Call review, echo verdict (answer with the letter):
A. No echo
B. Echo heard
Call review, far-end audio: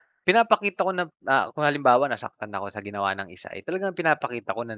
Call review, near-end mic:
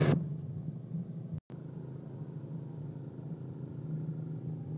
A